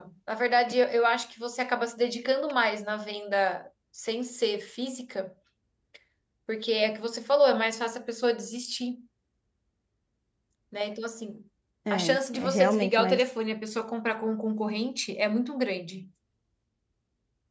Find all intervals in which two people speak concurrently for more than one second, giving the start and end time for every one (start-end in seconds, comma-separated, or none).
11.9-13.2